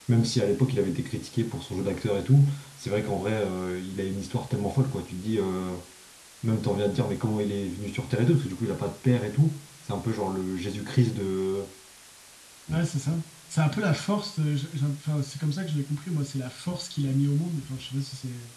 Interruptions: none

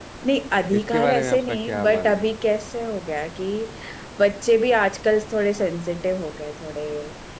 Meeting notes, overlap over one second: present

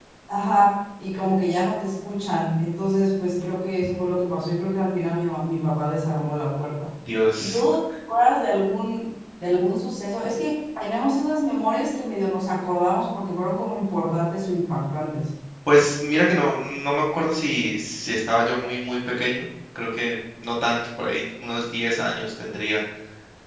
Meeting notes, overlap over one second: none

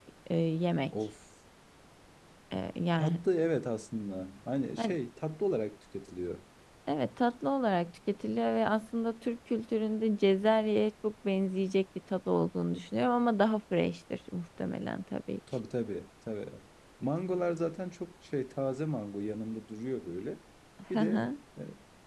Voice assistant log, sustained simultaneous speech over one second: none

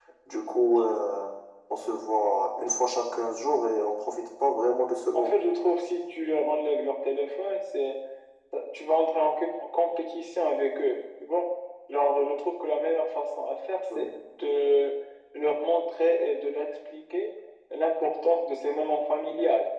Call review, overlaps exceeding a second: none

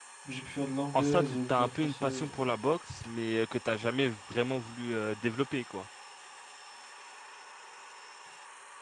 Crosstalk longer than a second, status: present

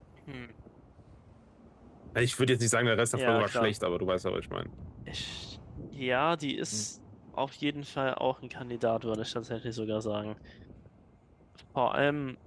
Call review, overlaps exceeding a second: none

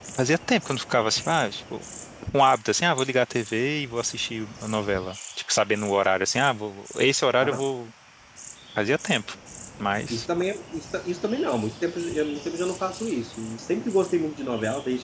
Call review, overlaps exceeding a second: none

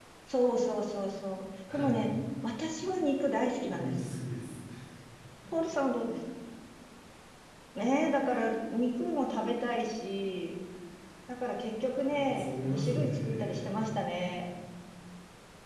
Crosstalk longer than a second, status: present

